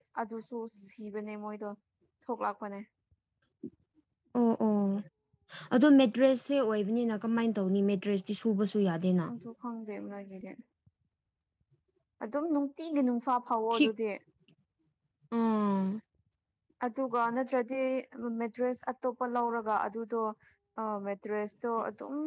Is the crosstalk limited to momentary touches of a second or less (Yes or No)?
Yes